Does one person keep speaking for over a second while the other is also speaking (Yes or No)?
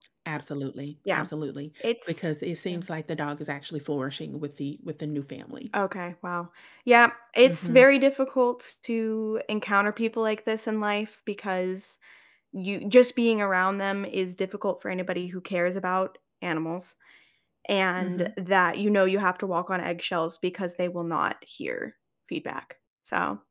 No